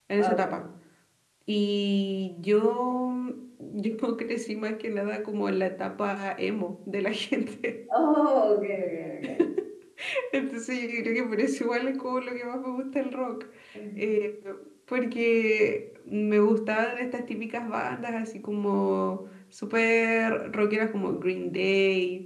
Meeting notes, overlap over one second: none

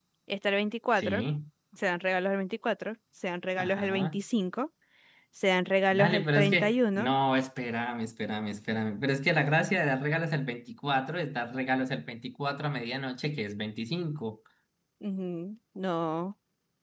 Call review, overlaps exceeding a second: present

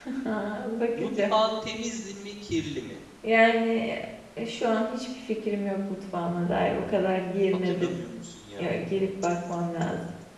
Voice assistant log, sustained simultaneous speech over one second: none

